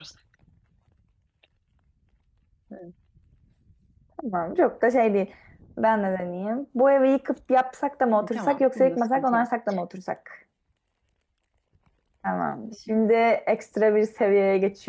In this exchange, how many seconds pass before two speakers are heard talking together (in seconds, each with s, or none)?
8.1 s